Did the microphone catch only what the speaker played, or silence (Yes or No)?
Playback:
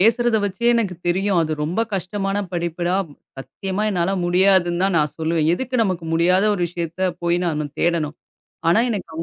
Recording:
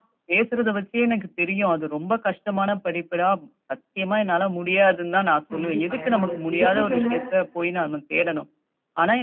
No